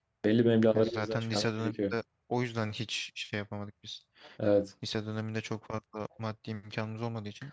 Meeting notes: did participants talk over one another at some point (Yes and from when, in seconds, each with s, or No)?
Yes, from 0.7 s